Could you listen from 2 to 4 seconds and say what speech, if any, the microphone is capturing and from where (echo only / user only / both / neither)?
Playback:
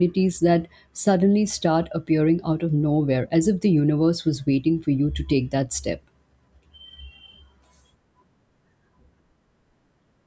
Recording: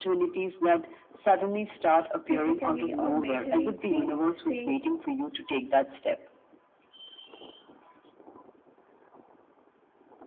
both